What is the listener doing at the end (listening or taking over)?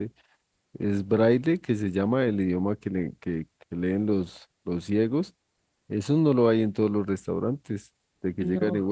listening